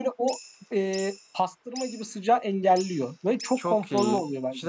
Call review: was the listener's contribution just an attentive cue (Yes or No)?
No